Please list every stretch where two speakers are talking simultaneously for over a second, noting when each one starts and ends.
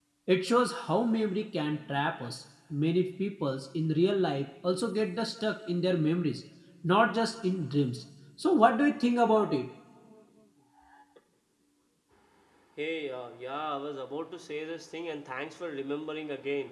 none

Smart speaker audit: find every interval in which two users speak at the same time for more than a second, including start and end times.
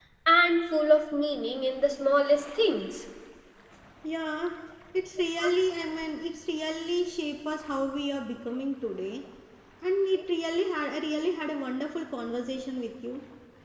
none

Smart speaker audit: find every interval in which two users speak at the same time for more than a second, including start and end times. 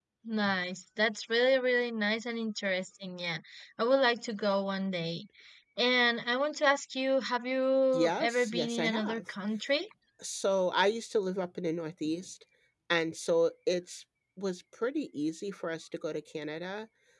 7.9-9.3

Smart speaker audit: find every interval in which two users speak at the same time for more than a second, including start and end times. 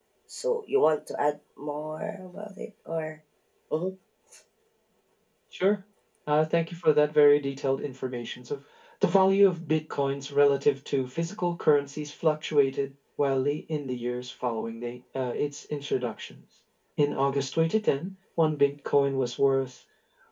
none

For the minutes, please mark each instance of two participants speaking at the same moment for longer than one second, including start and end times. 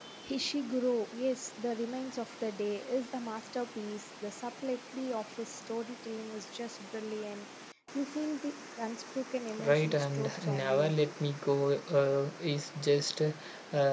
9.6-10.9

